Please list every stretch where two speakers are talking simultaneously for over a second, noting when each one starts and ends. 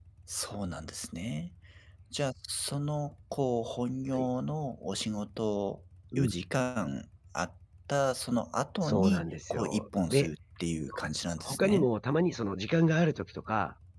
8.8-10.3

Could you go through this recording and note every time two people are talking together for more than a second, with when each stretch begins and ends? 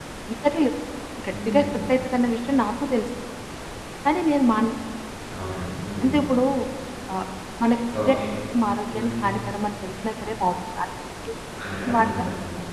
none

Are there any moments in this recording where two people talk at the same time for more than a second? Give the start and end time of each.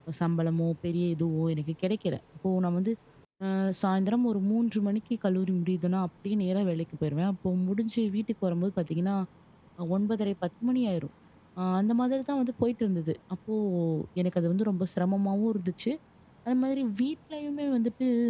none

